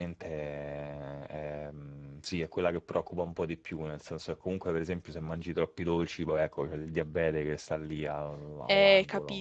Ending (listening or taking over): taking over